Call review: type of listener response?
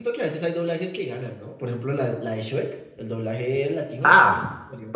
taking over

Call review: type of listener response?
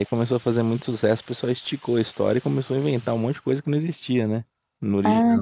taking over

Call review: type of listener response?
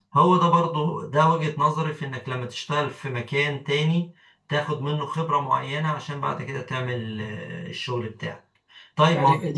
listening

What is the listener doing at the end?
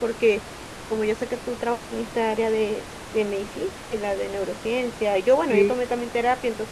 listening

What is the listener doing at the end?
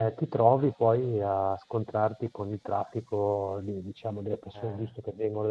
listening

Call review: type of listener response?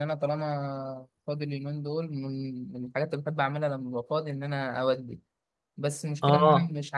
listening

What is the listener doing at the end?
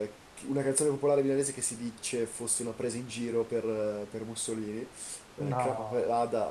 listening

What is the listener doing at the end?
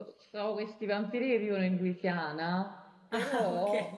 listening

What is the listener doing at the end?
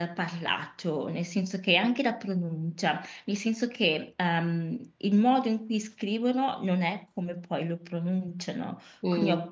listening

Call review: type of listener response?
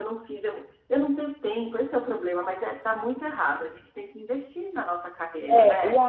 taking over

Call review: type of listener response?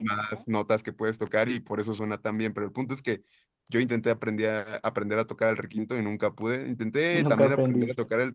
listening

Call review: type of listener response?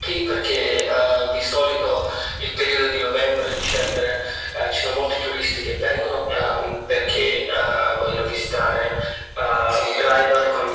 listening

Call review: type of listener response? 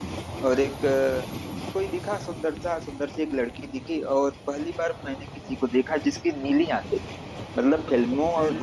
listening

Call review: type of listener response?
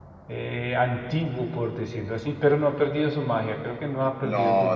taking over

